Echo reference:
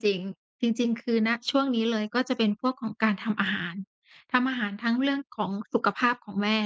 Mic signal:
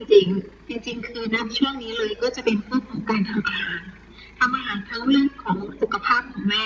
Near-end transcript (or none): none